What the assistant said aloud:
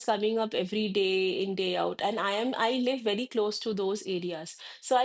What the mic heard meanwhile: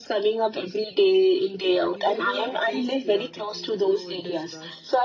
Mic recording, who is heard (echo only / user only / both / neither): both